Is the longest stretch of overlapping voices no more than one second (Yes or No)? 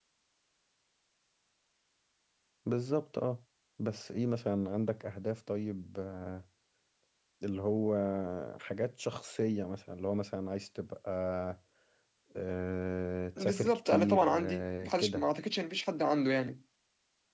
No